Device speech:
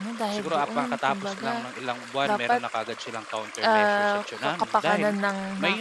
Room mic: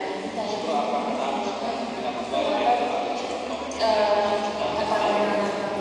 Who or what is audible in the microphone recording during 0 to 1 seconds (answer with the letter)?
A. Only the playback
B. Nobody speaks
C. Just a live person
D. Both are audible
D